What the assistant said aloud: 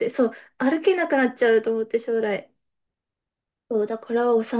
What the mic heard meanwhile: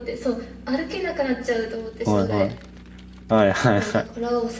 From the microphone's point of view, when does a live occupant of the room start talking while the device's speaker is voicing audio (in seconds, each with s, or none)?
2.0 s